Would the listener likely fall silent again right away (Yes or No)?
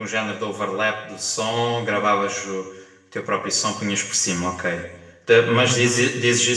Yes